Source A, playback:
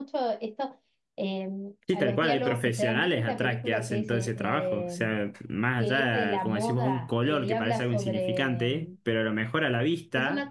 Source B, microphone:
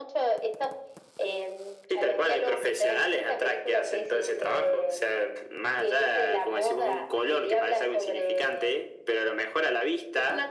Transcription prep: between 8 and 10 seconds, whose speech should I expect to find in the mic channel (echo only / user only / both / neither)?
echo only